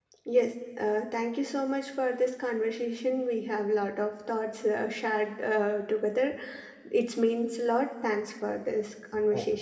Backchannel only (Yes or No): No